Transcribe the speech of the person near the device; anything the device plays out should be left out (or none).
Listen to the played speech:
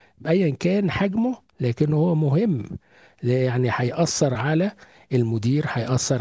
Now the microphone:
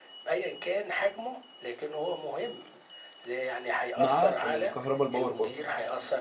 مع الكهرباء الباور برضو